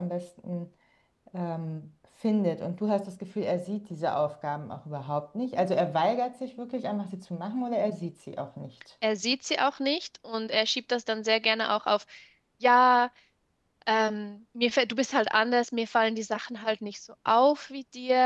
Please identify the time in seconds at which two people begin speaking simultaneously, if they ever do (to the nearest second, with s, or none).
none